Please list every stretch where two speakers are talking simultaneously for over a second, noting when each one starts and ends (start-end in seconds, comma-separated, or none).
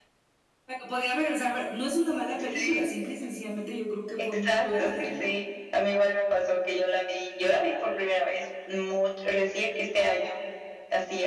4.2-5.4